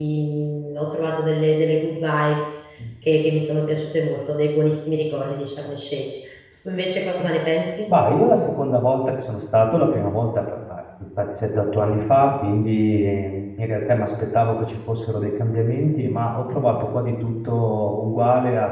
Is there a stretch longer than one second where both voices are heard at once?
No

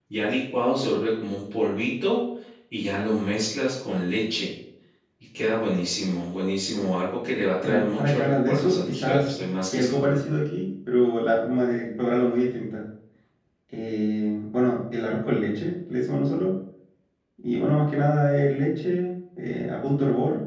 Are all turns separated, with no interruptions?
No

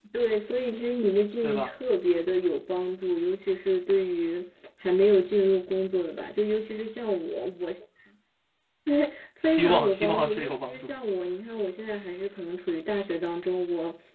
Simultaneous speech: Yes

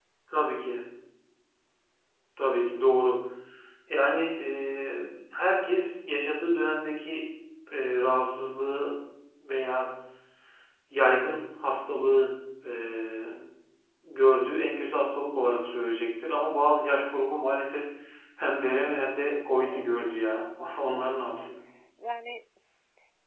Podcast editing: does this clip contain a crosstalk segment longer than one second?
Yes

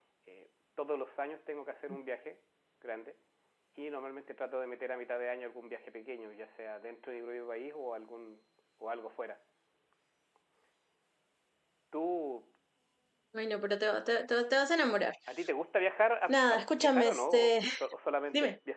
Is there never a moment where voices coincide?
No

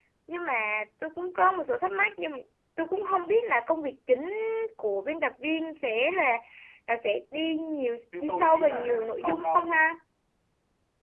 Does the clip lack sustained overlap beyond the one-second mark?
No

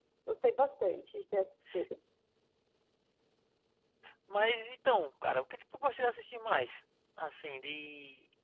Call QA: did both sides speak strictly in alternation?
Yes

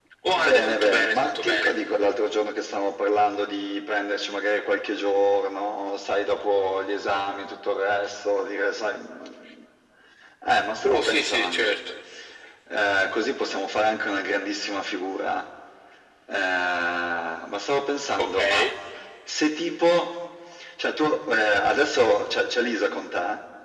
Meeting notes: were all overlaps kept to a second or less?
No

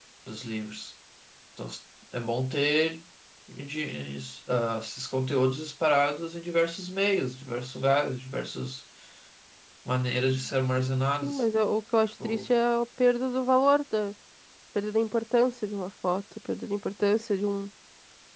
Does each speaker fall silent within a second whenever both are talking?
Yes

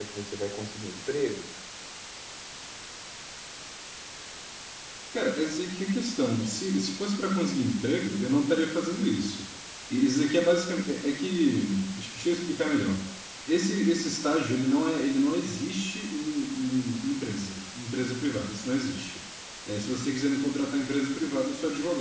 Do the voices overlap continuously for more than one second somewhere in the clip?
No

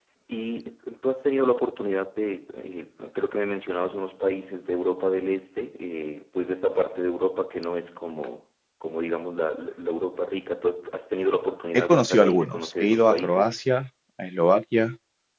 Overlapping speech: Yes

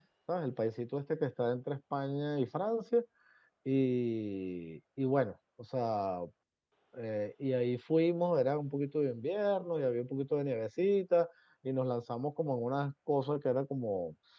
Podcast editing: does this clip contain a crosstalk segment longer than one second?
No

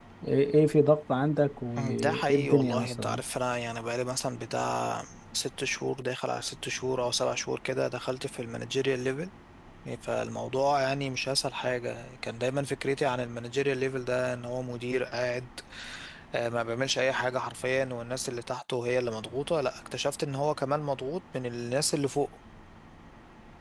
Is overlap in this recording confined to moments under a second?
No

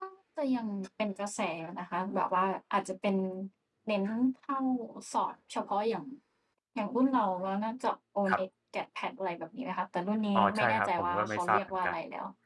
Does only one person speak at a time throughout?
No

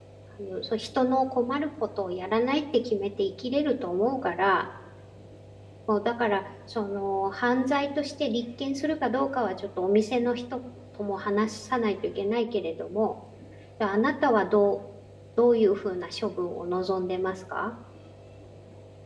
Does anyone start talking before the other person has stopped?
No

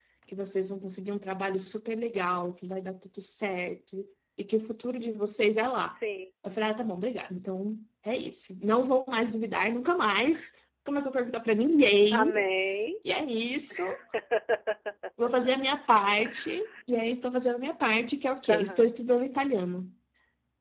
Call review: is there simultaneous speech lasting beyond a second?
No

